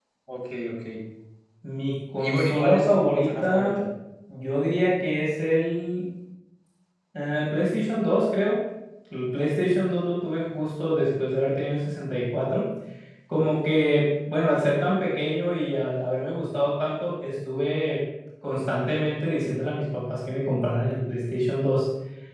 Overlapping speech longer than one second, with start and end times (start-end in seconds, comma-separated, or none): 2.2-3.8